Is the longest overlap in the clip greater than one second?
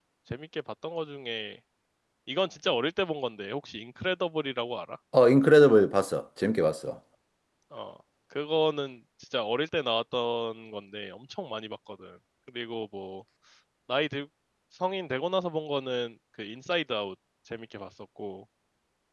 No

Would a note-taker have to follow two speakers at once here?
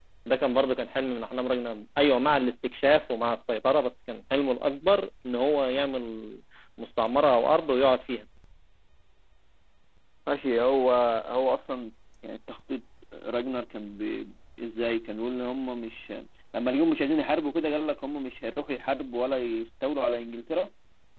No

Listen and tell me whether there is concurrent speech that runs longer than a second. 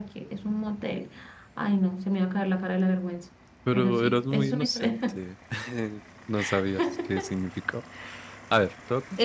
Yes, from 3.7 s

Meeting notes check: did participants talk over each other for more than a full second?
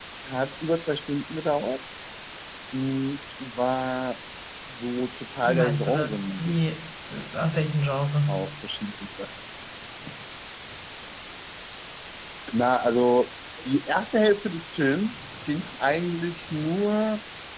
Yes, from 5.4 s

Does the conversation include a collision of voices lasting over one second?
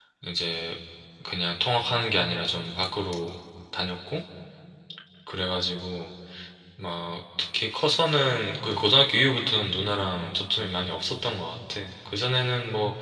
No

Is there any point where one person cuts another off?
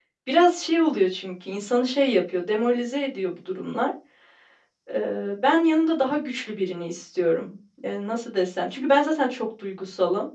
No

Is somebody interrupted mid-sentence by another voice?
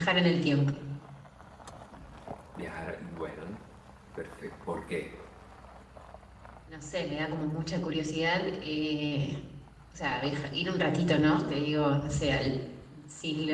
No

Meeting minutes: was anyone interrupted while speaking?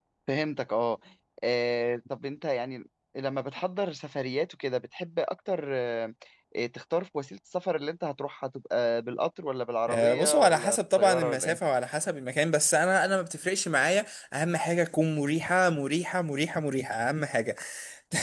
Yes, from 9.9 s

